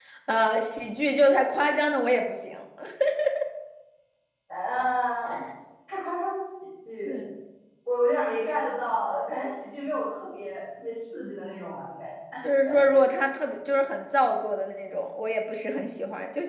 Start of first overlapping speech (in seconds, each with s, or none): none